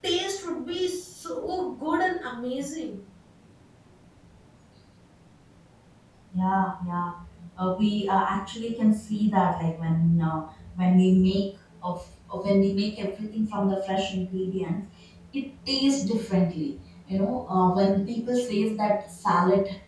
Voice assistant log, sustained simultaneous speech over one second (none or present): none